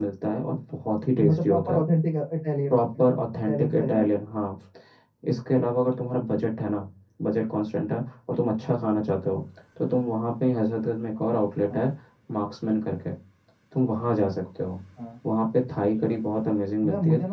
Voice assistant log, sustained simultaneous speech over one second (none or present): present